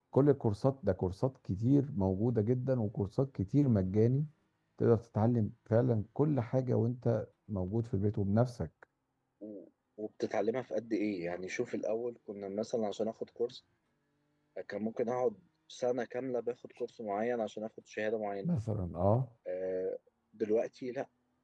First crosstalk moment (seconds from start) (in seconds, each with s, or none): none